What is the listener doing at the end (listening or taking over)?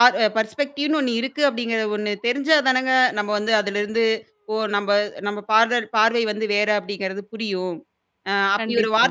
listening